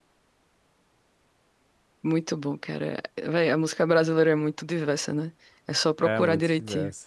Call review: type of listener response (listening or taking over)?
taking over